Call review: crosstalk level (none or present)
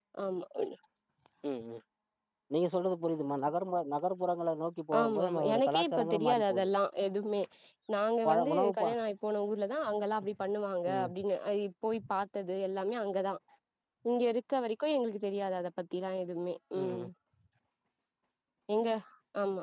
present